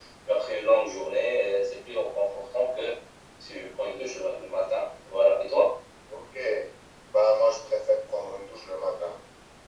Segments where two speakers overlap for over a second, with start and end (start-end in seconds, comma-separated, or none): none